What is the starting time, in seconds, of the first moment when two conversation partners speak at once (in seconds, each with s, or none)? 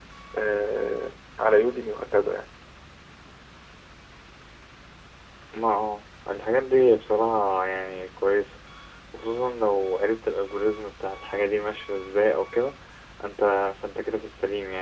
none